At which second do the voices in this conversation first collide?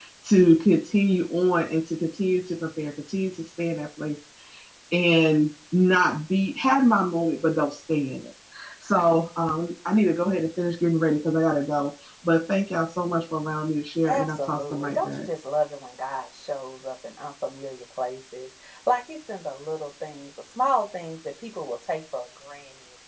14.0 s

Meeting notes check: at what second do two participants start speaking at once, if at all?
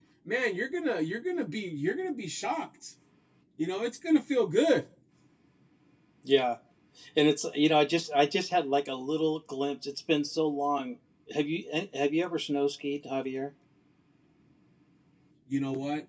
none

